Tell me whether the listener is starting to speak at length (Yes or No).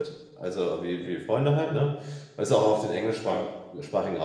No